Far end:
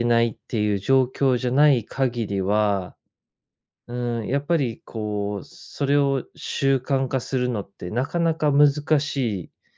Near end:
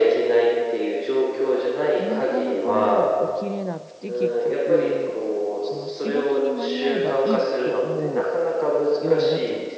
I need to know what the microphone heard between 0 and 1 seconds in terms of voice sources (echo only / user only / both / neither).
echo only